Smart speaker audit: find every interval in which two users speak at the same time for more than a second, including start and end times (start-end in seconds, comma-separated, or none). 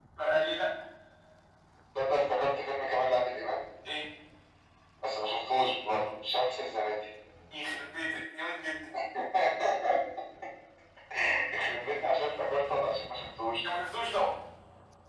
none